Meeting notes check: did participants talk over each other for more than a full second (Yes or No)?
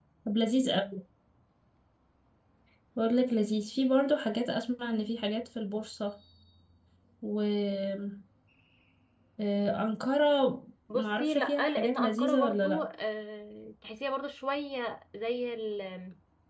Yes